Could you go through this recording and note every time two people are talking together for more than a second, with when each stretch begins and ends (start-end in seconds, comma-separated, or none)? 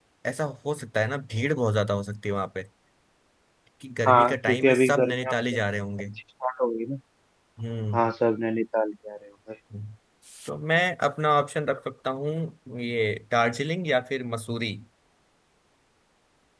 4.1-5.3